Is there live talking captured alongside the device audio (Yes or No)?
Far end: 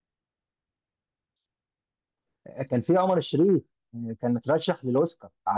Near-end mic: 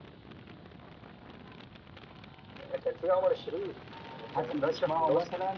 Yes